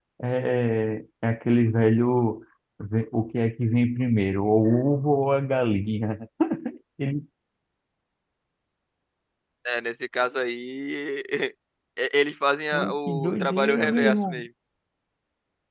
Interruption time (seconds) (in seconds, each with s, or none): 12.7 s